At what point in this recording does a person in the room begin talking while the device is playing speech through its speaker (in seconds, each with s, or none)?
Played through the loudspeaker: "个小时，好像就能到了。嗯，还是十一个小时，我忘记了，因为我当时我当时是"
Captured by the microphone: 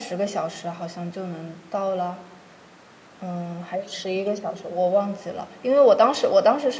none